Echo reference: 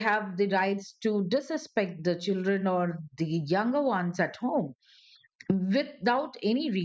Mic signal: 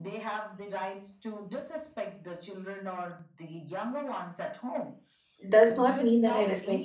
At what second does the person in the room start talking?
5.5 s

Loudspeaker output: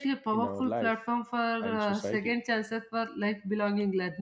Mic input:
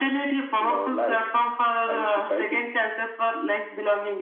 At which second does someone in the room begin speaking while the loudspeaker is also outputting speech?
none

